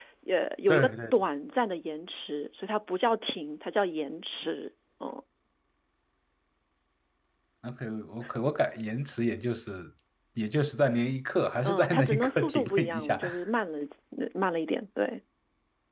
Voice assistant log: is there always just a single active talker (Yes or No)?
No